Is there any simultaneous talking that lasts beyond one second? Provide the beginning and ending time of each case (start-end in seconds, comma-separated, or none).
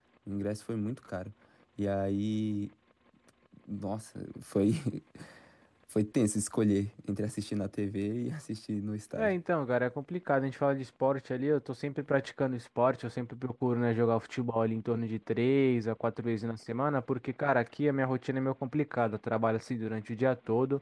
none